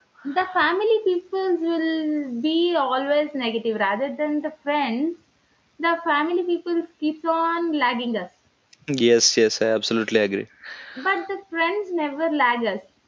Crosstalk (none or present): none